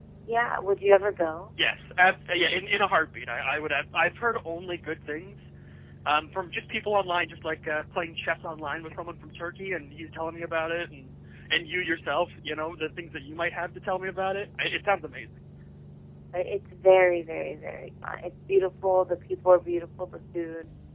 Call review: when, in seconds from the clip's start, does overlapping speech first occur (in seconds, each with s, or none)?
none